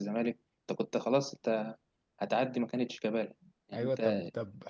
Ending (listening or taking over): taking over